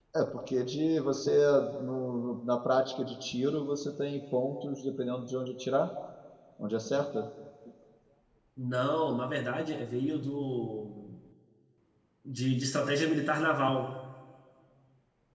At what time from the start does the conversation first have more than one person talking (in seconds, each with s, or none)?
none